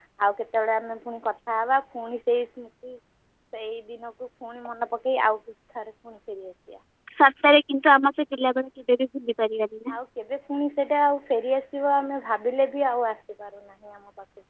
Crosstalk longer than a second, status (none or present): none